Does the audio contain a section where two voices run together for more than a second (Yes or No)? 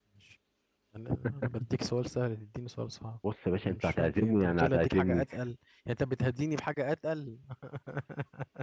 Yes